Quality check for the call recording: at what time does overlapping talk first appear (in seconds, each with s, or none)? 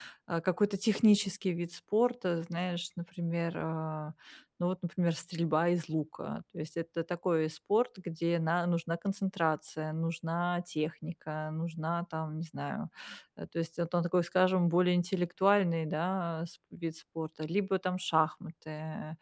none